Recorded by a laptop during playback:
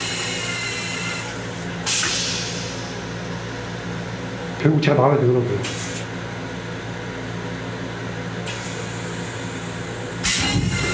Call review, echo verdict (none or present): none